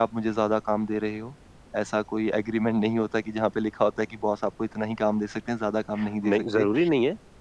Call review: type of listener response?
taking over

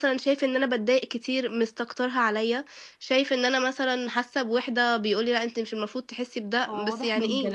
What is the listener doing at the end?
taking over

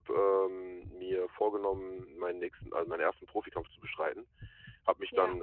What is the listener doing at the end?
listening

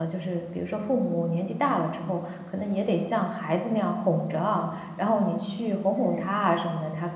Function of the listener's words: listening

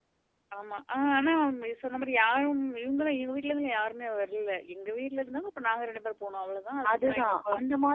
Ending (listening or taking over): taking over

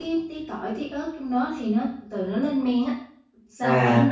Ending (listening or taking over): taking over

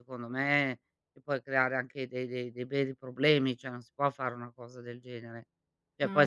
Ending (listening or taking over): listening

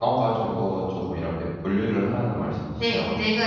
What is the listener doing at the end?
taking over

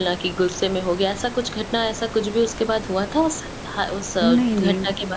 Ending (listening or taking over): taking over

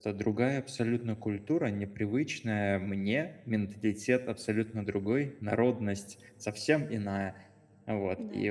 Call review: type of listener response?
listening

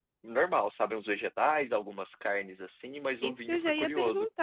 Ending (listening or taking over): taking over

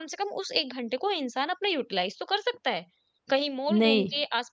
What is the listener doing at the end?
listening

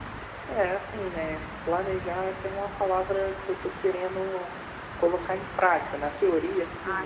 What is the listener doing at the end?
listening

